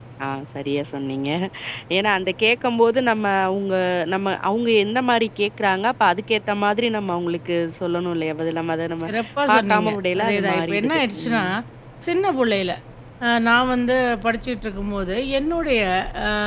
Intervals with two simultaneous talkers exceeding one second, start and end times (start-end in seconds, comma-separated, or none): 9.5-11.4